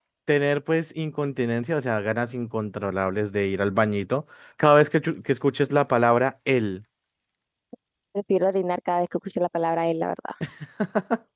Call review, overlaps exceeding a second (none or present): none